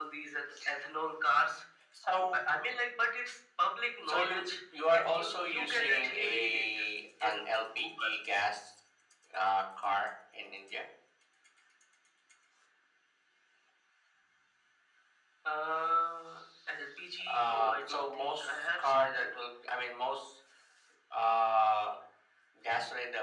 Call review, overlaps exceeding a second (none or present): present